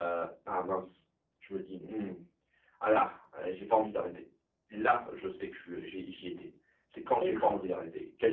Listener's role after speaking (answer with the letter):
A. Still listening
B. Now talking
A